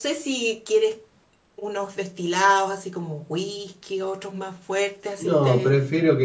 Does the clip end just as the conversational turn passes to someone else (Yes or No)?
Yes